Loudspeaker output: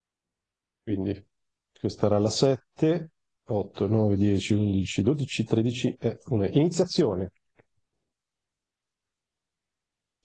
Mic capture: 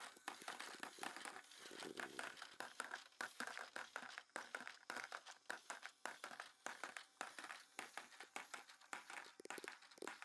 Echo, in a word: none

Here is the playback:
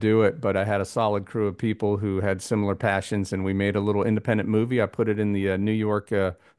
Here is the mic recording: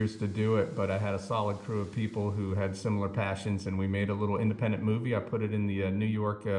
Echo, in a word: present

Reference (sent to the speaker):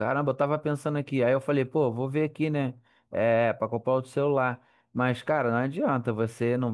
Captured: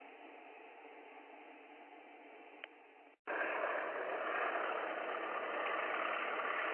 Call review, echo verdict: none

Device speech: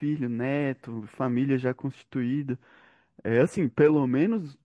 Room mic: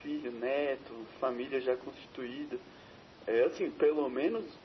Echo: present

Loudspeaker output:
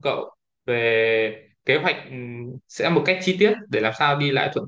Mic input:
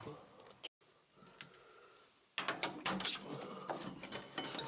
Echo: none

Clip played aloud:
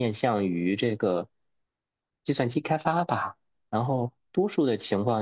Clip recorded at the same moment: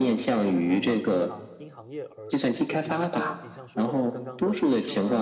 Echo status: present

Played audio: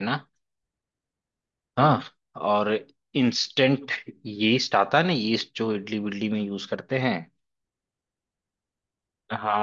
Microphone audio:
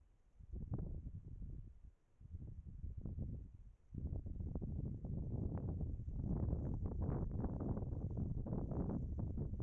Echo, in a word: none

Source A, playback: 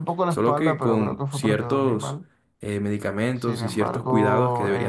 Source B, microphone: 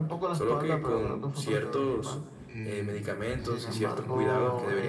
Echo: present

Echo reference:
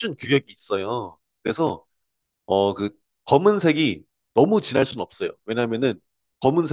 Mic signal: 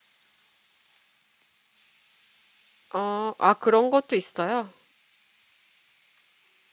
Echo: none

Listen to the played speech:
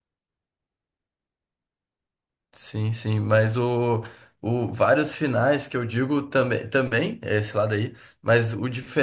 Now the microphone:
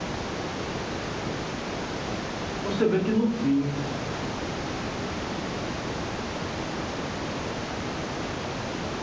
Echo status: none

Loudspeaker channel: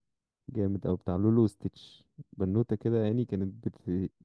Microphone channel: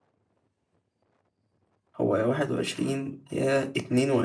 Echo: none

